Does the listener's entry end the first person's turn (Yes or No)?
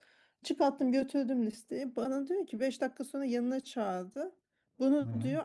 No